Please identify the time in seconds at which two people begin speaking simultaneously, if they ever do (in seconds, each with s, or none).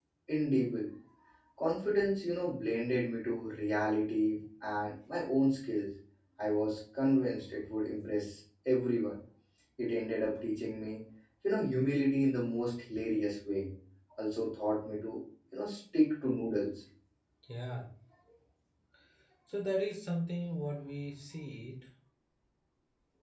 none